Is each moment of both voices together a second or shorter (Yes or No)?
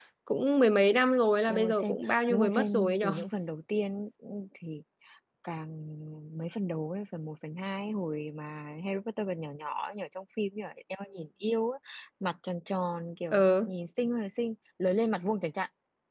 No